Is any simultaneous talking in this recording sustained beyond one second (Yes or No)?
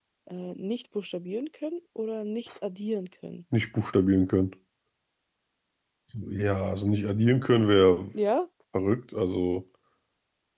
No